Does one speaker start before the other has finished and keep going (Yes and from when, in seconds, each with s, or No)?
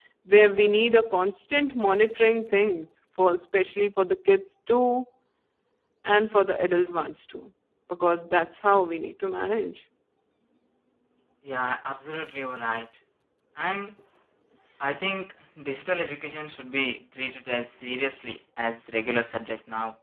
No